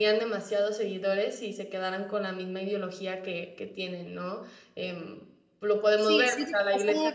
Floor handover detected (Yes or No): Yes